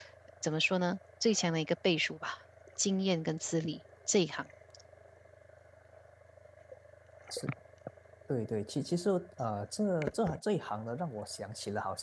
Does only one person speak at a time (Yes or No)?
Yes